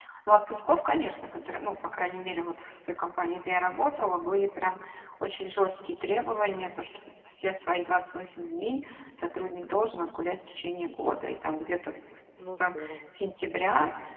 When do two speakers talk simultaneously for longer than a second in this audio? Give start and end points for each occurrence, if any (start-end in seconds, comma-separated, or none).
11.9-13.1